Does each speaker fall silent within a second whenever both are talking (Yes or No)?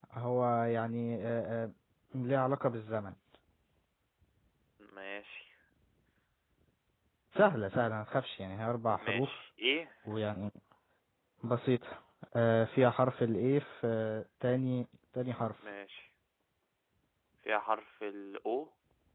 Yes